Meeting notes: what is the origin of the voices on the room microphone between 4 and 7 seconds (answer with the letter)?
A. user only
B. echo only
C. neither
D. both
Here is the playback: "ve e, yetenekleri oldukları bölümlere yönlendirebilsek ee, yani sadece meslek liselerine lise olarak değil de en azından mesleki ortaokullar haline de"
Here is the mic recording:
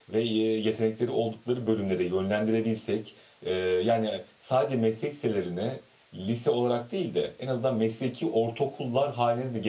B